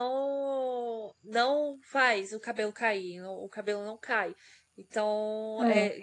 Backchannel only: Yes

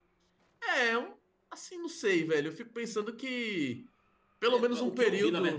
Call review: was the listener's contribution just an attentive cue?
No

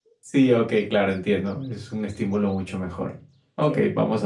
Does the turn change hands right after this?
No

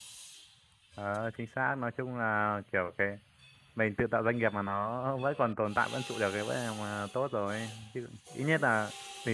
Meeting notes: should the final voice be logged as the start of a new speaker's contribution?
No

